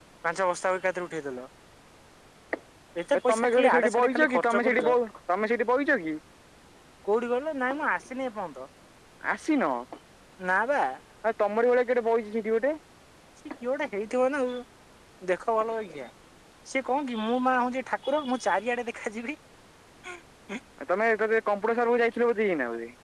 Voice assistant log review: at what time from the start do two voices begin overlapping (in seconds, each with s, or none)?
3.1 s